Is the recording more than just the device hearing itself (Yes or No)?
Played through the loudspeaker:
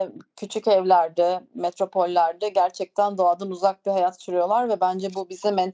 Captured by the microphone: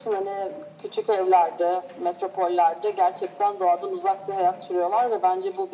No